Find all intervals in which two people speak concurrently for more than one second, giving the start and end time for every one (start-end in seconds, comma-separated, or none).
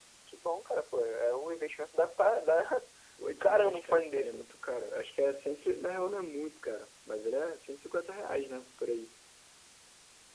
3.2-4.5